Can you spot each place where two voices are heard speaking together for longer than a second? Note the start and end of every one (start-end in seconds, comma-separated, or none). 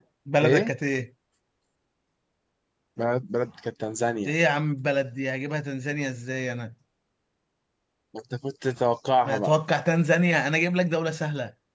none